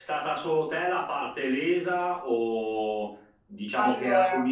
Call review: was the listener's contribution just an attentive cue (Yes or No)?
Yes